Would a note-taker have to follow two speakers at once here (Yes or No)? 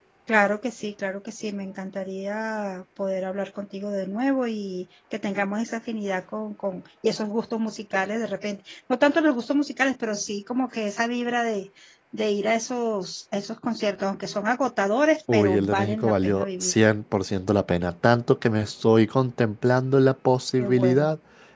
Yes